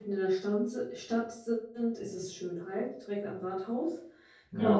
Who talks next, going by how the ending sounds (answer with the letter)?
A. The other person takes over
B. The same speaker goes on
A